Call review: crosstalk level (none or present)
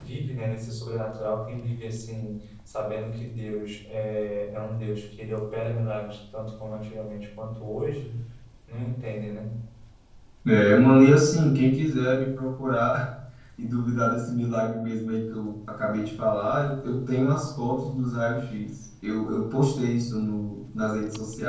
none